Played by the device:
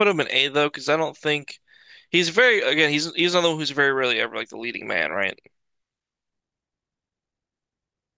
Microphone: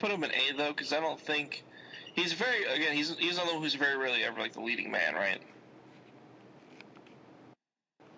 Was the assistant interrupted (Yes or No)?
No